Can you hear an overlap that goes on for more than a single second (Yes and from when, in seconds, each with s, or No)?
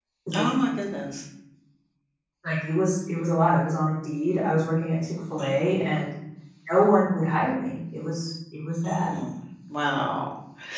No